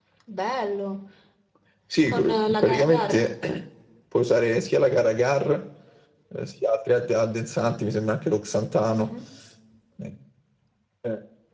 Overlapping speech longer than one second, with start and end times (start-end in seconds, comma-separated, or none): 2.1-3.3